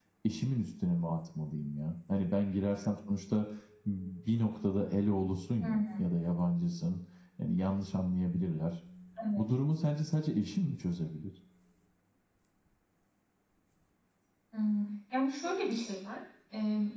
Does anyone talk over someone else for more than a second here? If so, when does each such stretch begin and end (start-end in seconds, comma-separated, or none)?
none